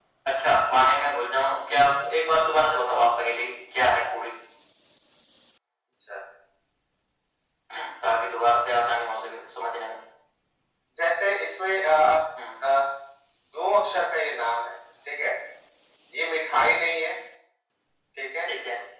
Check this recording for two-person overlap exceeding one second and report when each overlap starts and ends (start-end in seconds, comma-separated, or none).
none